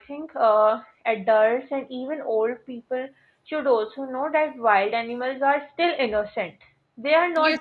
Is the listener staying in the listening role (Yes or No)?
No